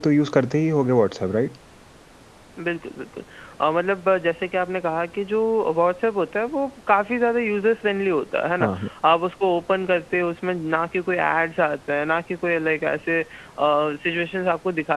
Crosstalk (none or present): none